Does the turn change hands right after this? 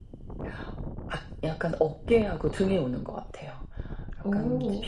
No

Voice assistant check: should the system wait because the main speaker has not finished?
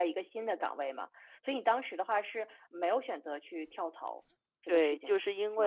No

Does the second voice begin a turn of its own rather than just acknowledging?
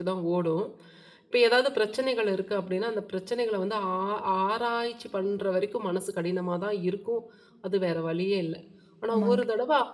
No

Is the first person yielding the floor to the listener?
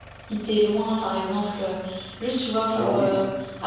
No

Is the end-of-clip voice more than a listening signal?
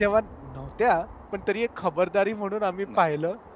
No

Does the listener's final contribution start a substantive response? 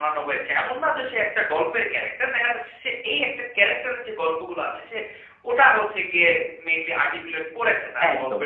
Yes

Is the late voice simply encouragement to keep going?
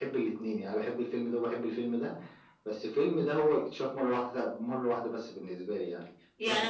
No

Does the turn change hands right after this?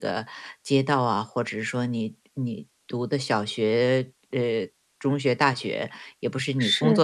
No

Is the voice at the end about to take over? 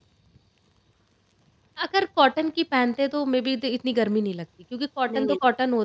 No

